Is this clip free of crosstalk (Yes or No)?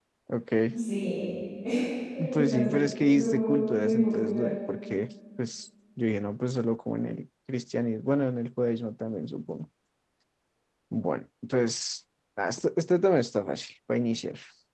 No